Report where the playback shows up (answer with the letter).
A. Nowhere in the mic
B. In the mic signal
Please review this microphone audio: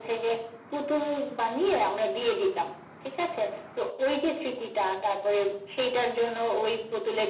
B